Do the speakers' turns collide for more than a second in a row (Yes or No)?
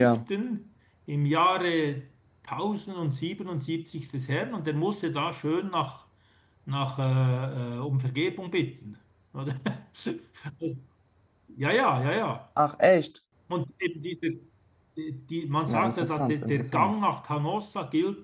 Yes